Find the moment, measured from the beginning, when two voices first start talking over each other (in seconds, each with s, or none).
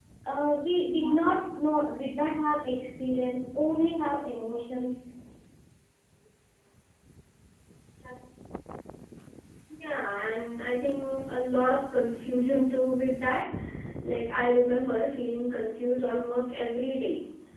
none